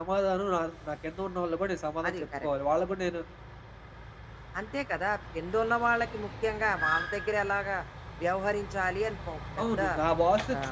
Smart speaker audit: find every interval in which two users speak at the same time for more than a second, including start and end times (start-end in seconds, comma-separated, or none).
none